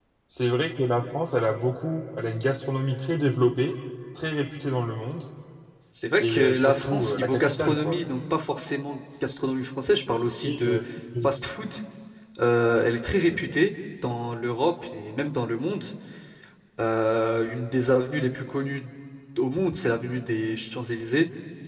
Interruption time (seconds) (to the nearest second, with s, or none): 6 s